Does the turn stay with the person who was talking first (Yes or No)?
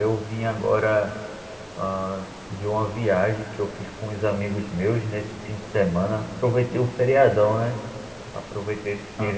Yes